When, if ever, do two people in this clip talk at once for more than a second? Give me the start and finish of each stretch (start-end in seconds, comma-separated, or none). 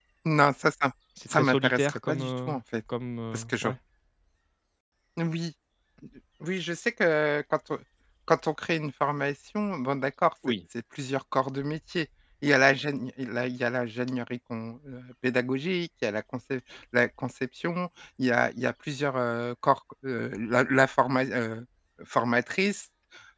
1.3-2.6